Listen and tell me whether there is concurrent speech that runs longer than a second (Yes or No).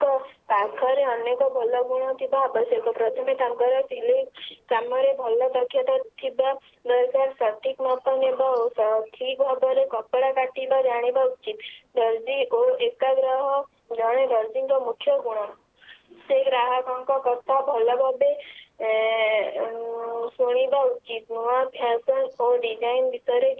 No